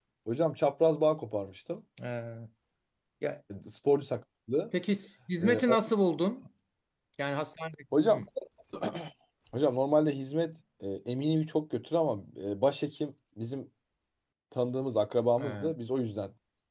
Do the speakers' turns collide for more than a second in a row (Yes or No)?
No